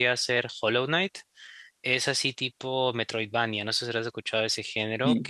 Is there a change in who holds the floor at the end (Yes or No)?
No